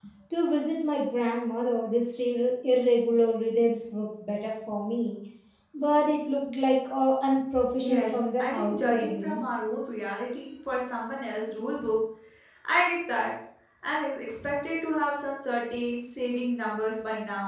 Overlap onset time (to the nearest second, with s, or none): 8 s